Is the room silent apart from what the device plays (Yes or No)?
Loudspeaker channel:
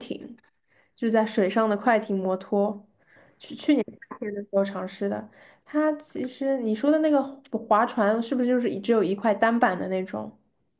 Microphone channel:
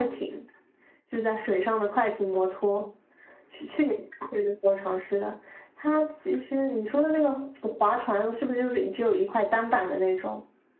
Yes